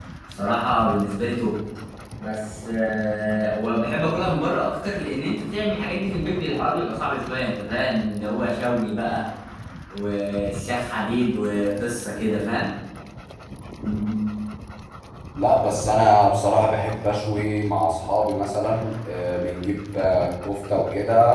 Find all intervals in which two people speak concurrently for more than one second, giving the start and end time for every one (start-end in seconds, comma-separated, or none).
none